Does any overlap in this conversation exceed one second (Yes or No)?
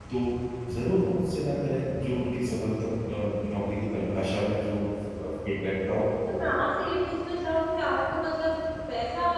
No